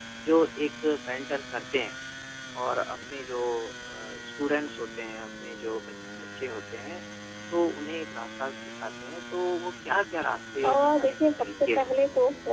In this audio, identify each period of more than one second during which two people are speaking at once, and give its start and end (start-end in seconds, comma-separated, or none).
10.6-11.9